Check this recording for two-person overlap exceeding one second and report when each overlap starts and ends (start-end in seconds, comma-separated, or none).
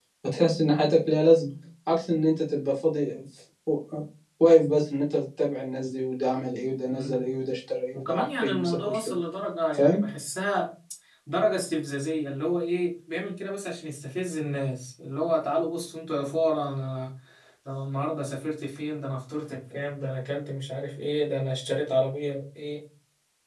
7.9-9.2